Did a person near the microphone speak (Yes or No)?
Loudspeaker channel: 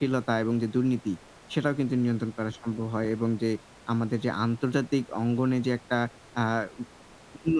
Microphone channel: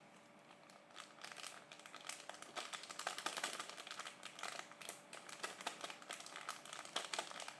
No